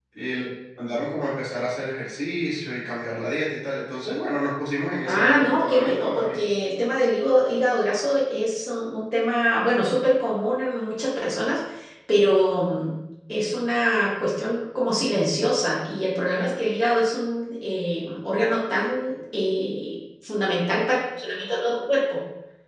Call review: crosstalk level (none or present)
present